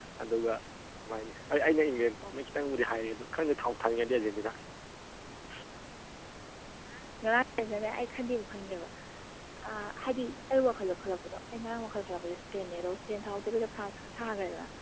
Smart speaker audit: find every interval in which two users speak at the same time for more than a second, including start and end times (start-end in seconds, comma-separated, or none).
none